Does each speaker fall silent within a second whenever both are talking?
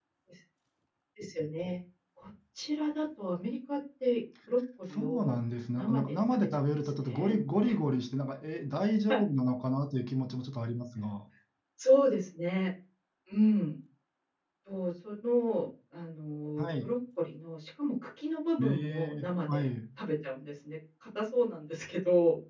No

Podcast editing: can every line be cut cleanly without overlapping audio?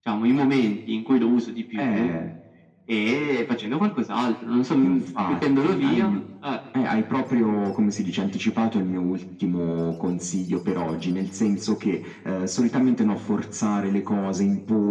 No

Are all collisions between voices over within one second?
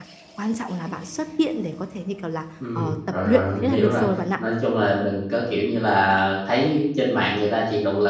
No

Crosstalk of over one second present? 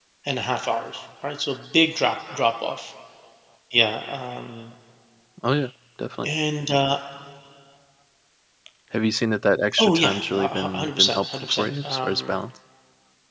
Yes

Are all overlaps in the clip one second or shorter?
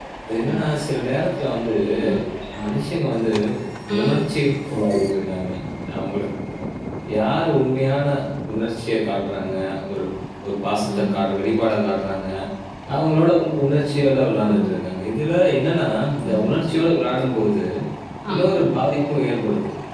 Yes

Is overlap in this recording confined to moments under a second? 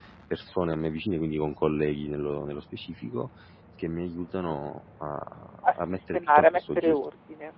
No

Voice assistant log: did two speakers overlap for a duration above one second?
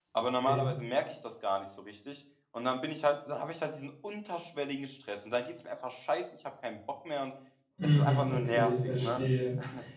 Yes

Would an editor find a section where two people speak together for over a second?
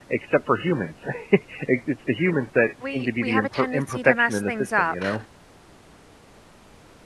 Yes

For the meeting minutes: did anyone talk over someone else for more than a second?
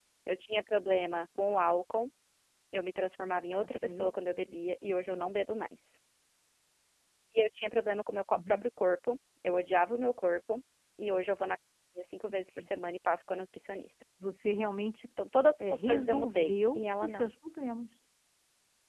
Yes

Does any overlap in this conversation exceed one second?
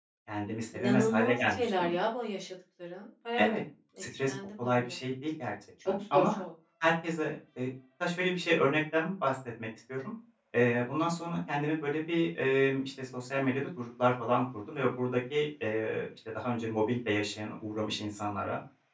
Yes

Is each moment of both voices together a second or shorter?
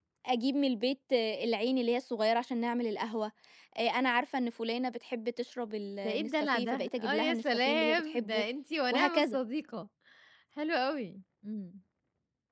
No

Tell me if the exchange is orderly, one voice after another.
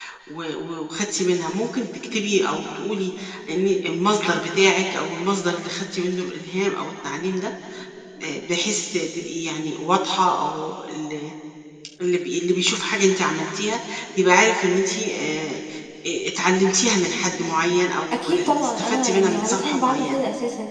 No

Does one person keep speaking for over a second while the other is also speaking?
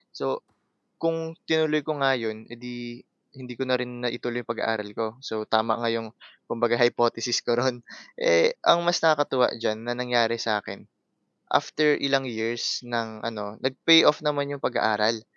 No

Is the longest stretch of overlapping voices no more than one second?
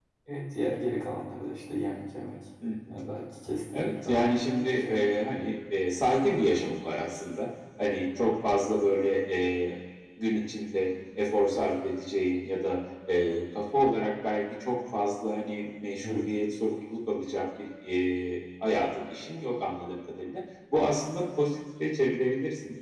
No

